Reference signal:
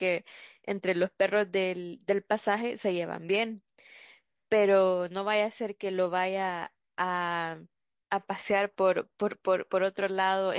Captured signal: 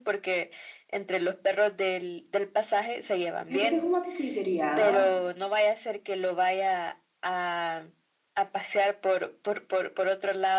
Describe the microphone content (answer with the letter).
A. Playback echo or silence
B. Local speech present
B